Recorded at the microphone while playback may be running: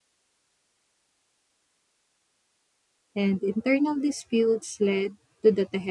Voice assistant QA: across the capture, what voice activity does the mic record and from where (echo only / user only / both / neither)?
user only